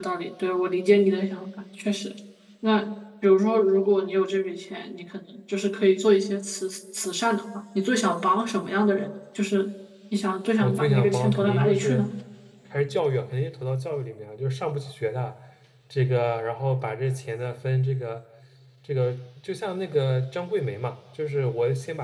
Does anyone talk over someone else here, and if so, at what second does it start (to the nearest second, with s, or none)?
11 s